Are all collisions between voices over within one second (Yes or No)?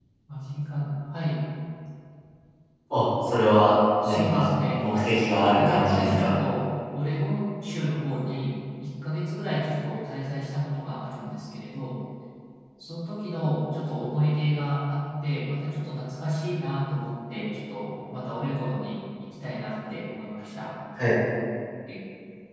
No